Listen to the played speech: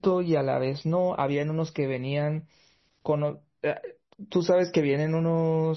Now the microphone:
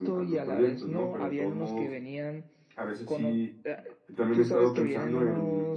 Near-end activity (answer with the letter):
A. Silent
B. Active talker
B